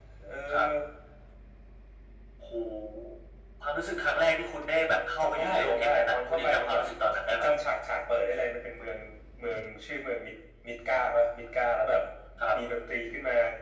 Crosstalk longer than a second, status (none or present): present